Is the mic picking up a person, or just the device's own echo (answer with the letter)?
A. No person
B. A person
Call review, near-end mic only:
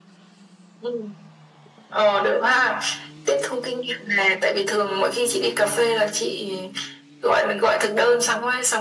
A